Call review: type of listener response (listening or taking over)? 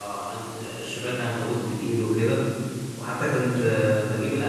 listening